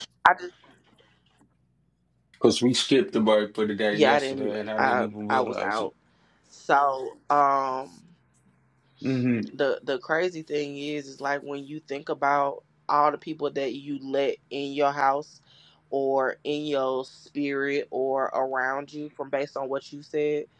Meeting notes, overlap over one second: present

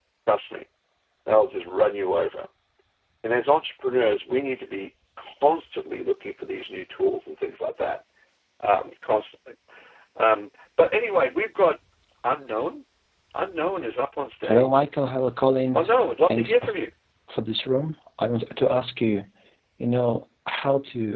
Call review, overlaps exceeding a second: none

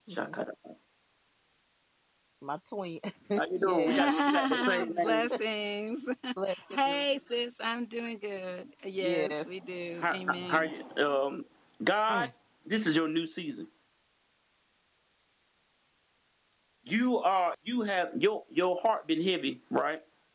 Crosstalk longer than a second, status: present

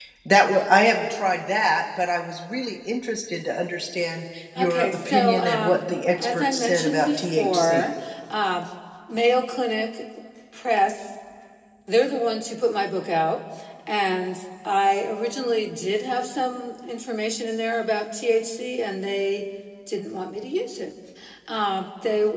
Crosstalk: present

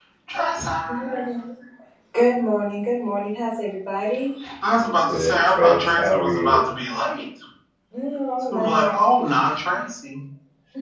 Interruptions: present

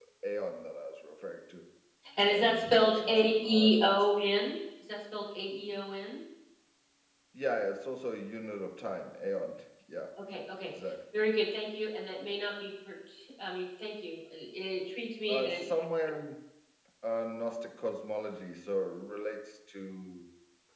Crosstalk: present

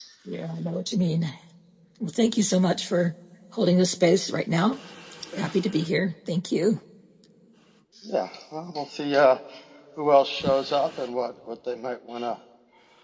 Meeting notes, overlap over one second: none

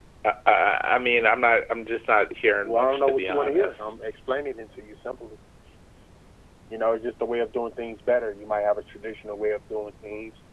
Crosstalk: present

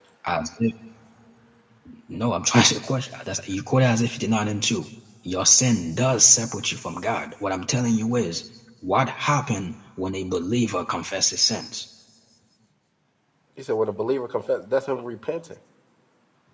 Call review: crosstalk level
none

